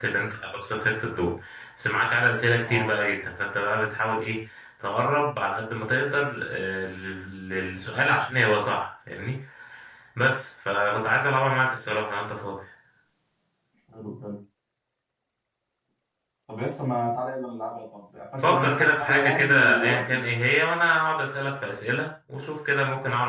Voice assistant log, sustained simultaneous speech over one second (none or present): present